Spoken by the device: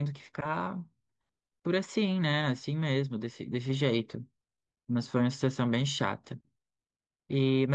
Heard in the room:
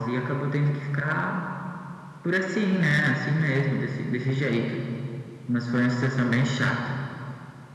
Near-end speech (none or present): none